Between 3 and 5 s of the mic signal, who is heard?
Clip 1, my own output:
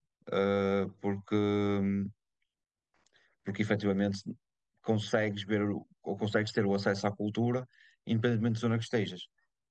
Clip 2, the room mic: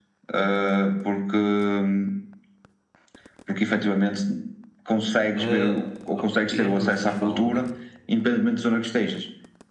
echo only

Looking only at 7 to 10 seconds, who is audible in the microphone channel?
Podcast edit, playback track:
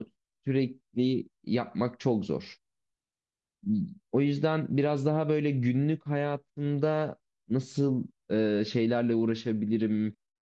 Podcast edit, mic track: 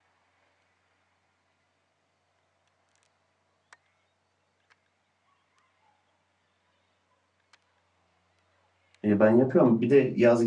user only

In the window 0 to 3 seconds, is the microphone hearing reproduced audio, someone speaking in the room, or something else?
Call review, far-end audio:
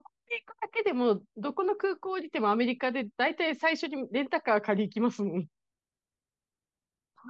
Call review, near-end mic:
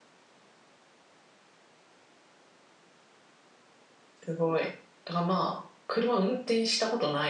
neither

